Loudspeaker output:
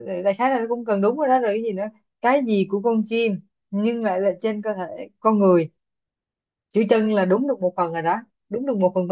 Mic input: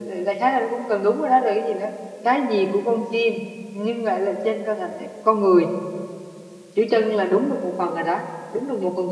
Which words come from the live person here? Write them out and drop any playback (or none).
none